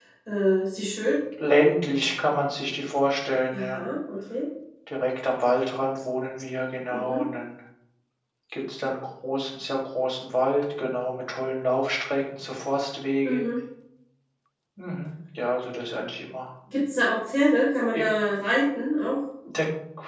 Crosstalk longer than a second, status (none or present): none